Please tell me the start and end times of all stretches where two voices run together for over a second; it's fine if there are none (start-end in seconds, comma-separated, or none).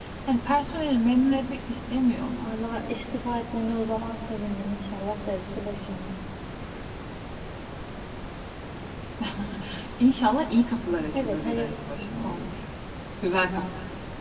11.1-12.4